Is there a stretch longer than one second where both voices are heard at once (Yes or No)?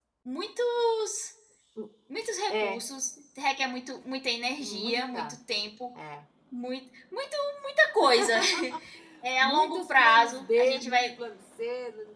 Yes